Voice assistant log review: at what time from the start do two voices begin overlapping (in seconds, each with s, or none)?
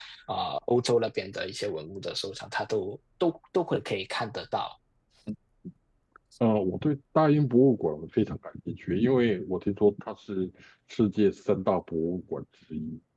none